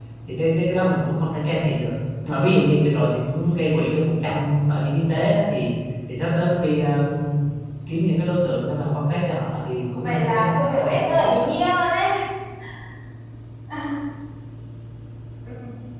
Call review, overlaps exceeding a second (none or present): present